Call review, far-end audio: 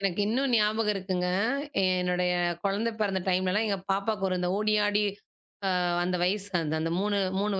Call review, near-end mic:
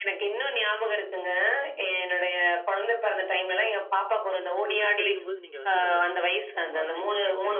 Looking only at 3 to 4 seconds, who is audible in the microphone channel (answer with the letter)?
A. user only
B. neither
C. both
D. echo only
D